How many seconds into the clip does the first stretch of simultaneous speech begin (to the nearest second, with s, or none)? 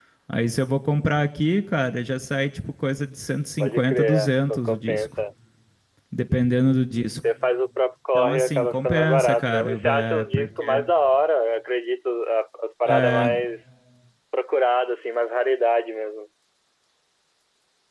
4 s